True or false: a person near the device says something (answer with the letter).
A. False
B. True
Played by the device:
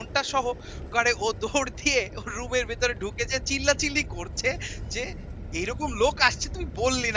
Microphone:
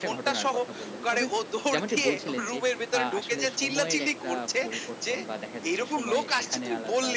B